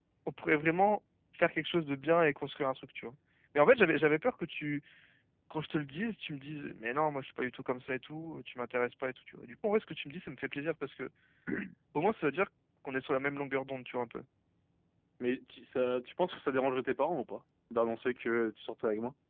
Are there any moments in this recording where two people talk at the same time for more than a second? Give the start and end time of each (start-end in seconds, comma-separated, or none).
none